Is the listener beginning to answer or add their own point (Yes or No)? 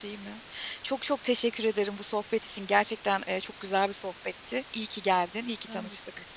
Yes